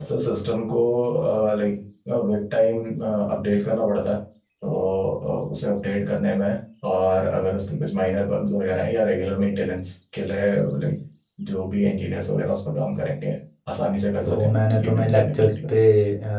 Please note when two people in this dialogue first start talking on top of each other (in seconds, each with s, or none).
14.2 s